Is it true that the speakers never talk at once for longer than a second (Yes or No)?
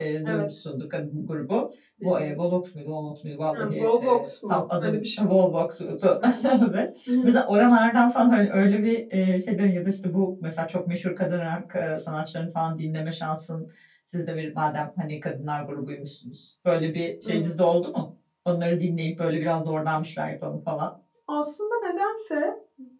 No